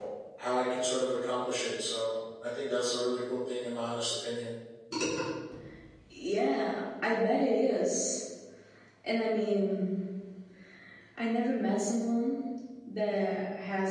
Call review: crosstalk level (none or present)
none